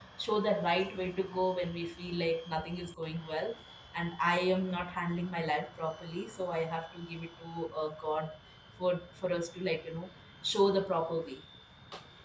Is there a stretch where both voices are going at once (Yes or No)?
No